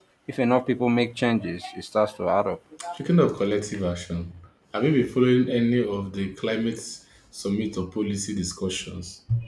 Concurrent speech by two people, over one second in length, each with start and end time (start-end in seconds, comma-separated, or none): none